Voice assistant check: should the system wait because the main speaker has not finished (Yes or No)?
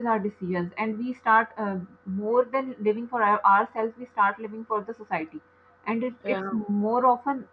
Yes